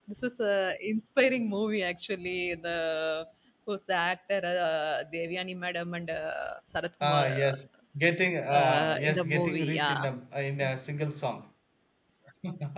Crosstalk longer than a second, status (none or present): present